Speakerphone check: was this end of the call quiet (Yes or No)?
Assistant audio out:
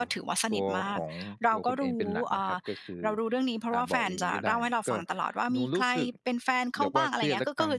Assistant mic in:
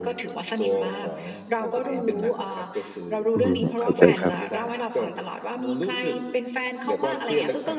No